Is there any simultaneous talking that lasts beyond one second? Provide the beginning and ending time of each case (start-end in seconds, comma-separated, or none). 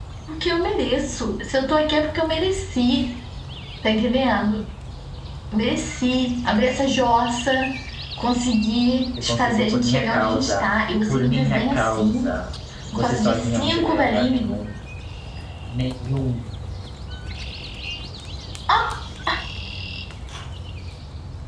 9.2-10.7, 11.1-12.4, 13.0-14.5